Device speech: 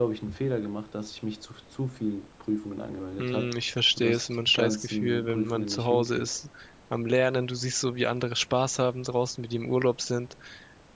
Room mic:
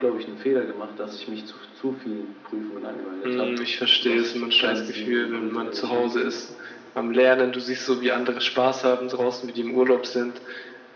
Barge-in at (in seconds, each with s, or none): none